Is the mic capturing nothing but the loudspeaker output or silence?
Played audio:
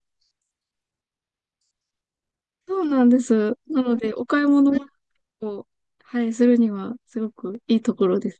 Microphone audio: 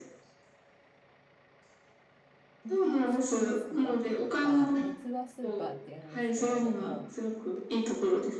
No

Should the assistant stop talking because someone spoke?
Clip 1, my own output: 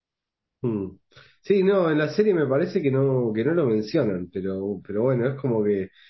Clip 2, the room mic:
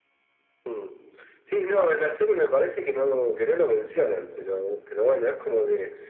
No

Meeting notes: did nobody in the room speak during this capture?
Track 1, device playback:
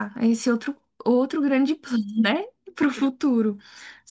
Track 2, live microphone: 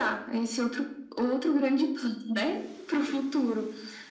Yes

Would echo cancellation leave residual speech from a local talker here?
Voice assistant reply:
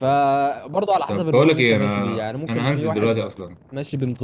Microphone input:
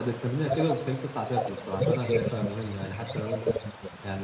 Yes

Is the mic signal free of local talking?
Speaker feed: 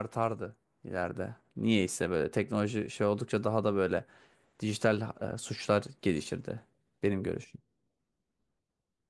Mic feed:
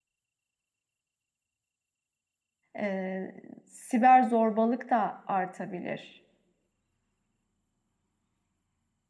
No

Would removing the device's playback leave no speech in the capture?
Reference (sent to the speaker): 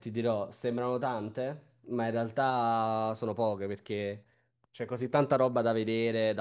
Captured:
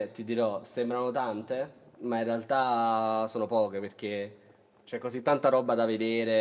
Yes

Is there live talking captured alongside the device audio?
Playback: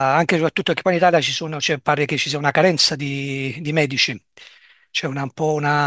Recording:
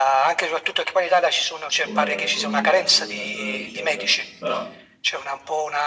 Yes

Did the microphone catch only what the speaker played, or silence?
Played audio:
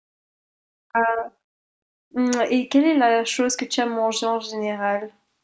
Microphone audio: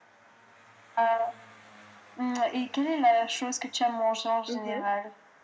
No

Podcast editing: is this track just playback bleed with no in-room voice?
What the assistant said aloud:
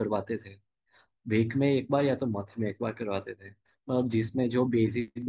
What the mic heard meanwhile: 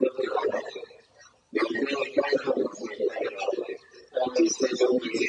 Yes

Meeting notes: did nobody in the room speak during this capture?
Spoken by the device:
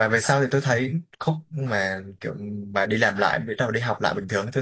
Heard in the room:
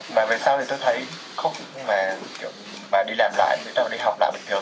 Yes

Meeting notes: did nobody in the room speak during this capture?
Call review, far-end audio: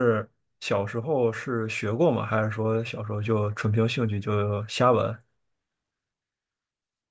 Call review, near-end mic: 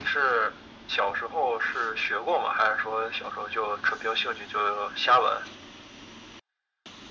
Yes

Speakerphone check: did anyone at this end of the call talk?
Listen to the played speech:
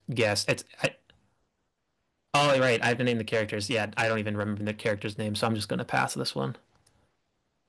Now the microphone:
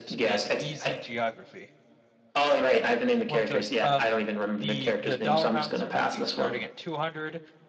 Yes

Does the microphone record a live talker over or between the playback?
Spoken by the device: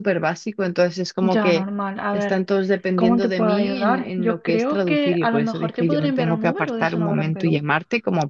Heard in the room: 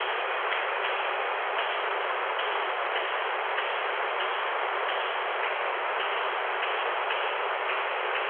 No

